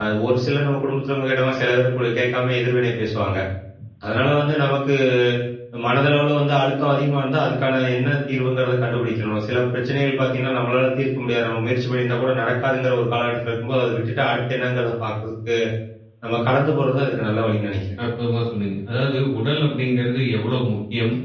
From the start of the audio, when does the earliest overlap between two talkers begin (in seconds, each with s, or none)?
none